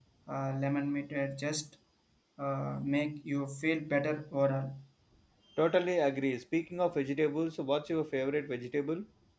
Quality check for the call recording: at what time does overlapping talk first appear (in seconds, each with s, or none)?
none